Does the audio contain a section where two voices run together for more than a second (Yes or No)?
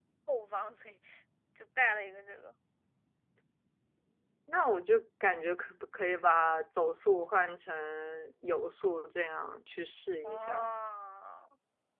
No